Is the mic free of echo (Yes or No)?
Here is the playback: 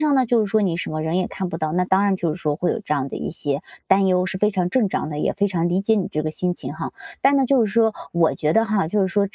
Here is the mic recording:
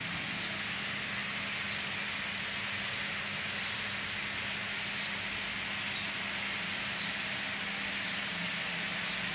Yes